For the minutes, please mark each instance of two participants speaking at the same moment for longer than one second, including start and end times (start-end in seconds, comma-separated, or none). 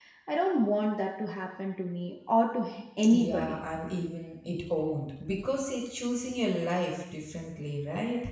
none